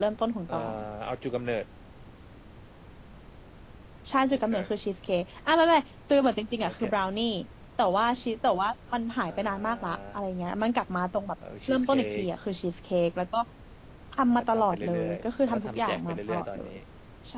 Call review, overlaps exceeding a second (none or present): present